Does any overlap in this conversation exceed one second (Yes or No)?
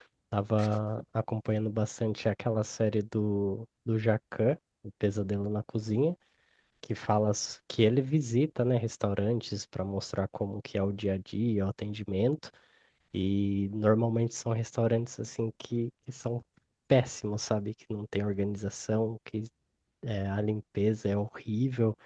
No